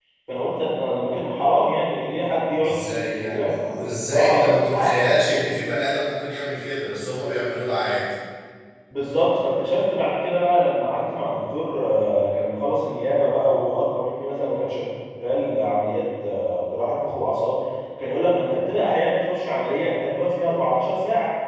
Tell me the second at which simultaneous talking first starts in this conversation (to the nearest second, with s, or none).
3 s